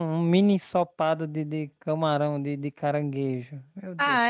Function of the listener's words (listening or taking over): taking over